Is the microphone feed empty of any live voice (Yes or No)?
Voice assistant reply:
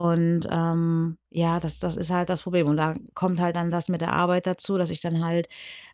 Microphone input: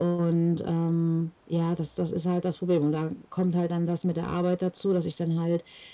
Yes